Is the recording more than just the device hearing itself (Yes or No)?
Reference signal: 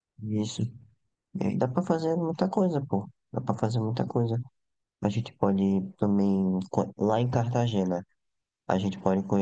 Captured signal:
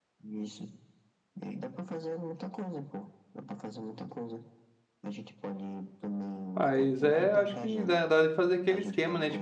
Yes